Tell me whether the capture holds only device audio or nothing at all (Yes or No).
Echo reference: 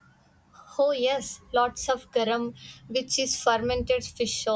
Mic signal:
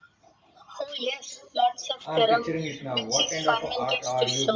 No